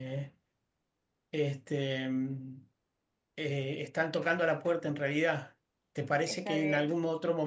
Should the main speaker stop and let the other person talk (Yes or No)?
No